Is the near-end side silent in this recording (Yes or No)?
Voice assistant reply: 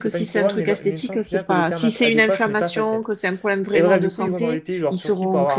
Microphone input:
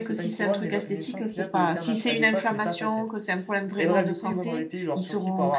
Yes